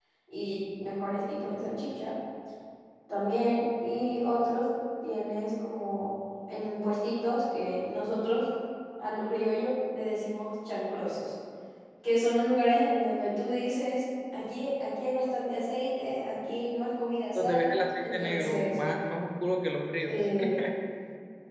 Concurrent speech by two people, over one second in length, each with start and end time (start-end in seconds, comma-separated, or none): 17.4-18.8